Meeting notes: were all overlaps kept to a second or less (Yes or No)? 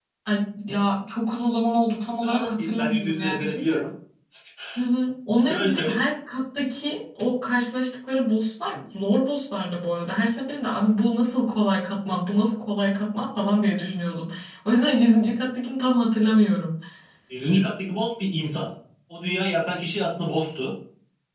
No